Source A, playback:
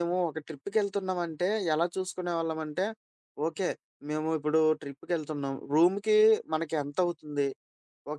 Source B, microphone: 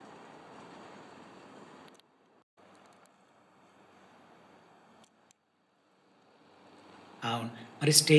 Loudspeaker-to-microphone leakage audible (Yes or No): No